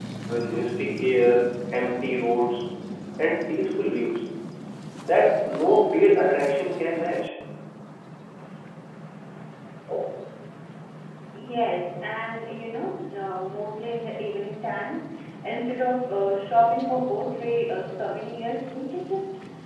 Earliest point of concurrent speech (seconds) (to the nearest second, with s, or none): none